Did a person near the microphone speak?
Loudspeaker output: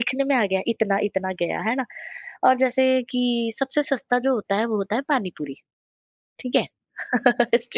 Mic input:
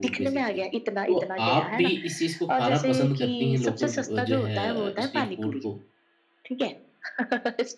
Yes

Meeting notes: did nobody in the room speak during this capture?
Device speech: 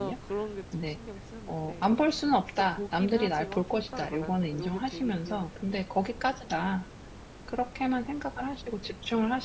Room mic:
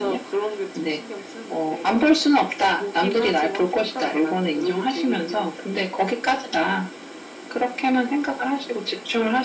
Yes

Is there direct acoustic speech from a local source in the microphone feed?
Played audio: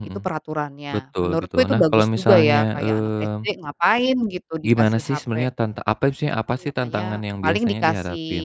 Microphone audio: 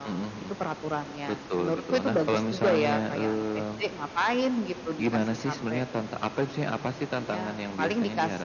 No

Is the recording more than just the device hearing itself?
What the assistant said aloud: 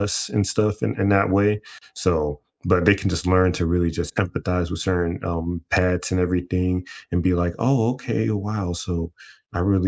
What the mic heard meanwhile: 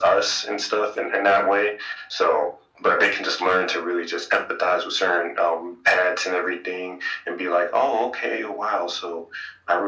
No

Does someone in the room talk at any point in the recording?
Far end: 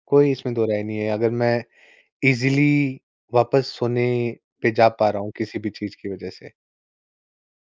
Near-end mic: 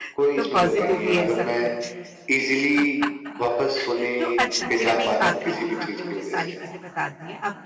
Yes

